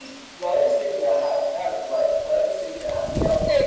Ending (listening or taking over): taking over